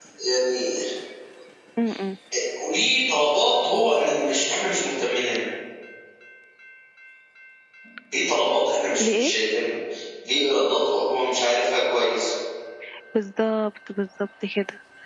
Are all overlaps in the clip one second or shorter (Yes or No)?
Yes